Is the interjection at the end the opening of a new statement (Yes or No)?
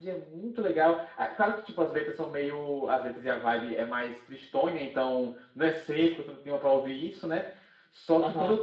No